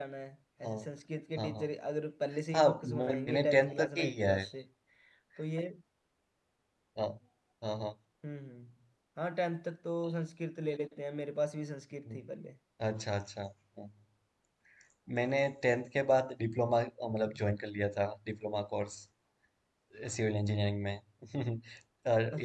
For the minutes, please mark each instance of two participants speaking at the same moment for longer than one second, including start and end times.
2.6-4.4

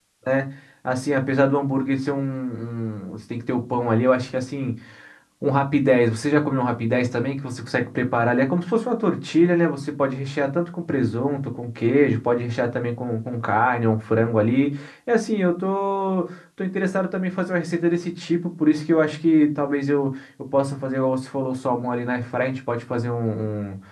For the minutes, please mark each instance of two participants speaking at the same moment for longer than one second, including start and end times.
none

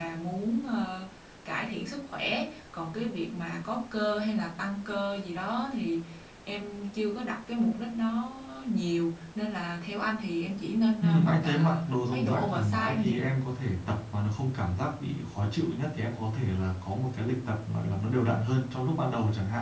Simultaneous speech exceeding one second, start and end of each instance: 11.0-13.1

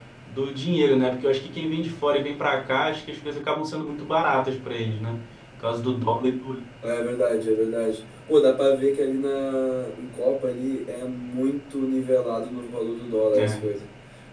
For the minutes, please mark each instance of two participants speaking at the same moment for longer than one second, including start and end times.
none

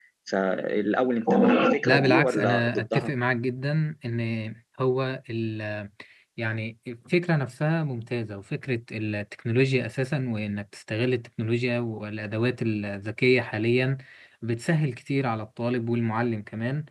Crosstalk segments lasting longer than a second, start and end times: 1.8-3.1

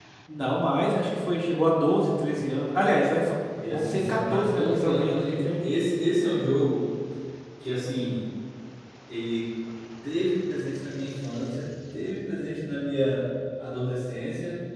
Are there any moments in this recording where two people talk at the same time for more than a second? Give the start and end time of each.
3.7-5.6

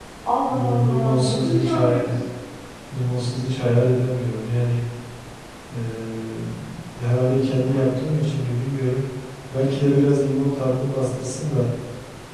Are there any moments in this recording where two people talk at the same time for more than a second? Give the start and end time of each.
0.5-2.1

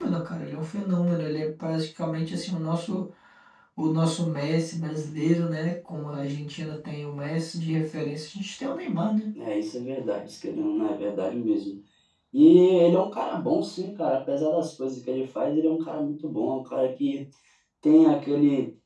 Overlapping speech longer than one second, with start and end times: none

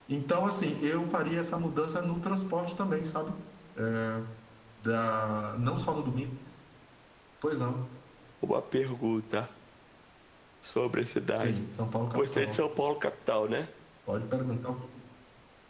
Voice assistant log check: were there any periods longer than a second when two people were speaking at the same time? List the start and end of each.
none

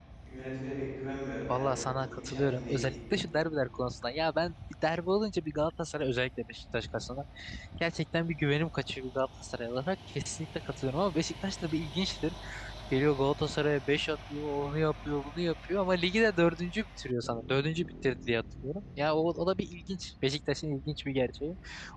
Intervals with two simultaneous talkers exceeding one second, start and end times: 1.5-2.8

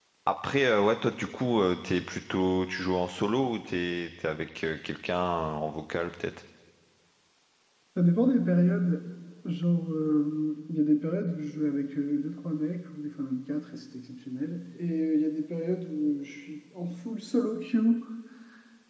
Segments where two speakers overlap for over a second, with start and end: none

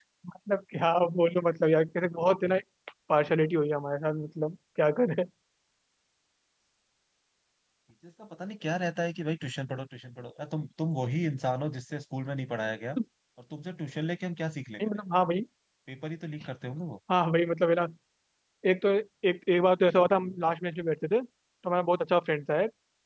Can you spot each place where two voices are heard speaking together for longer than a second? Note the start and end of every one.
none

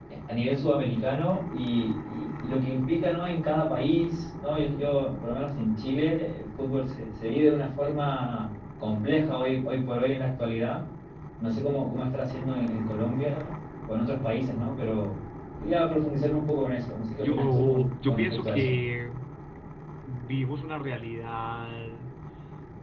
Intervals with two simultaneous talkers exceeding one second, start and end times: 17.2-18.8

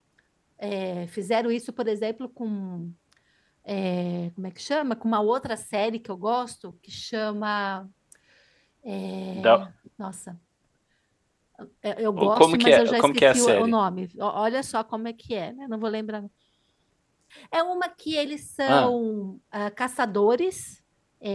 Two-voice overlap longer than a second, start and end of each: 12.2-13.7

